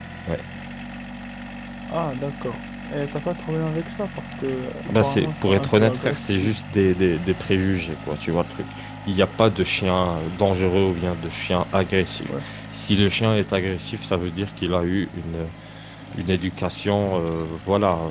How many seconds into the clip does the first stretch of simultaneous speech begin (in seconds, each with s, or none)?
4.8 s